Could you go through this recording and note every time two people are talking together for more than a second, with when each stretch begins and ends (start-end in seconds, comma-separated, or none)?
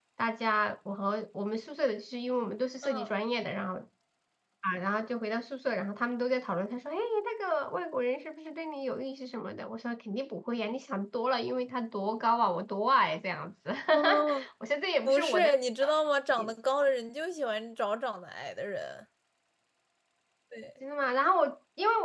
none